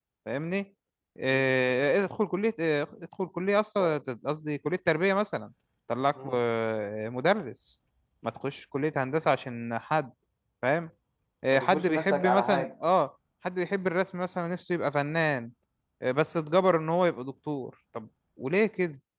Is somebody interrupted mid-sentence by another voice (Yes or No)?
Yes